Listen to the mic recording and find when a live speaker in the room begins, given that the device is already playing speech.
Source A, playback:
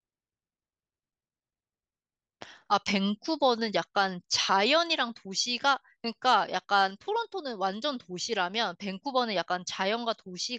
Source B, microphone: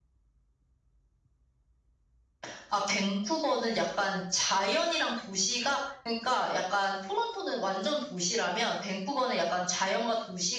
none

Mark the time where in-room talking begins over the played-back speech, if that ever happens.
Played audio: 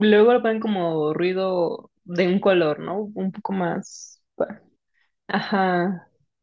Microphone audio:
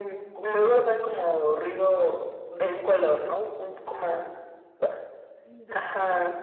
5 s

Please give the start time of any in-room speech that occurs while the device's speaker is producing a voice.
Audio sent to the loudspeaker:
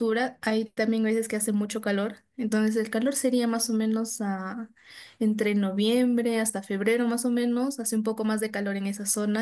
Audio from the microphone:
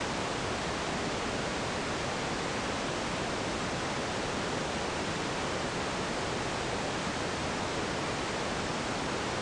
none

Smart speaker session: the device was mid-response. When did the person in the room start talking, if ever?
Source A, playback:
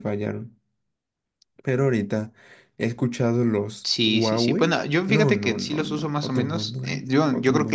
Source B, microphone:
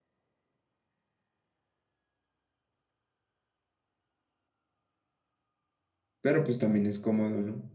6 s

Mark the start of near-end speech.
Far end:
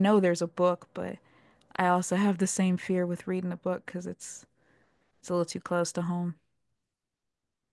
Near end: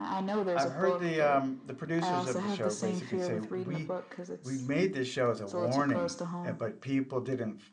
1 s

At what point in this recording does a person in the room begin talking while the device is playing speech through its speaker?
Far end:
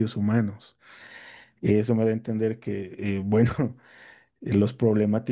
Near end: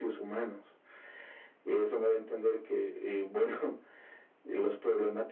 none

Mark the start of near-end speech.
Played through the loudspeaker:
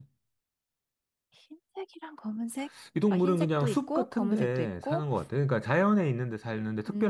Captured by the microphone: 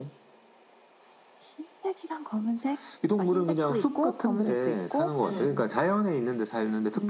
5 s

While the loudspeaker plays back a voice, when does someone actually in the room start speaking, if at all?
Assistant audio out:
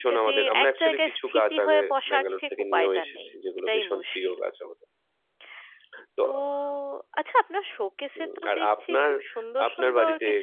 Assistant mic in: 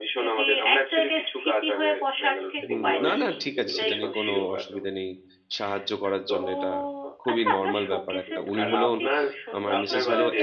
3 s

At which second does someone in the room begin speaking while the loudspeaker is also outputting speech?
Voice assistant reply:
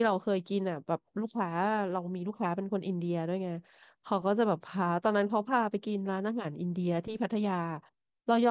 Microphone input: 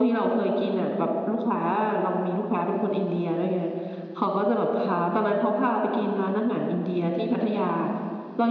none

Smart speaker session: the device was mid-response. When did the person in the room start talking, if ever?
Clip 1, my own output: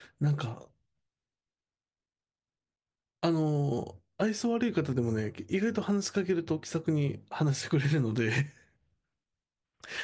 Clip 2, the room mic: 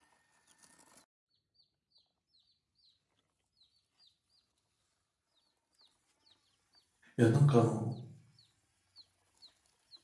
7 s

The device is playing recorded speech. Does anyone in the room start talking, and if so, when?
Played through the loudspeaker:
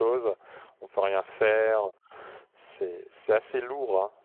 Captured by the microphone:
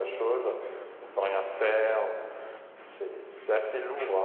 none

